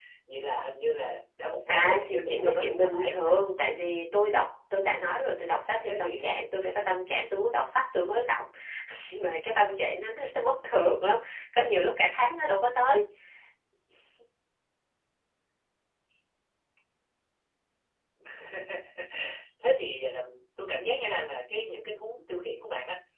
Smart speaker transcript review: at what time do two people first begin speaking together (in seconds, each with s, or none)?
1.7 s